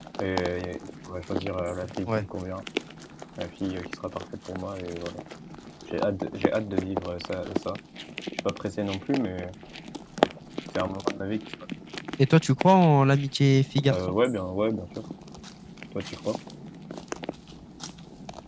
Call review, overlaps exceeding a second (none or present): none